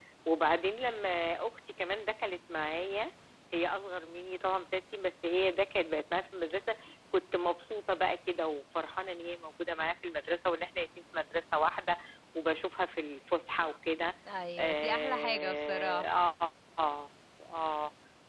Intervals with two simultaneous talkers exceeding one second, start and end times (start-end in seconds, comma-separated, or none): 14.6-16.3